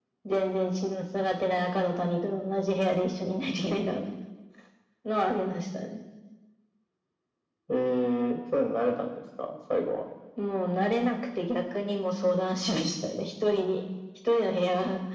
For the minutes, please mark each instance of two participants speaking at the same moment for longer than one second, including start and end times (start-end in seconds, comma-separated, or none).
none